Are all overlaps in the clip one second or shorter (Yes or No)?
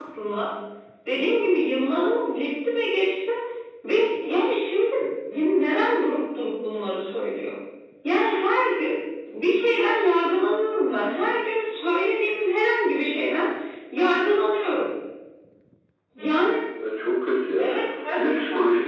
Yes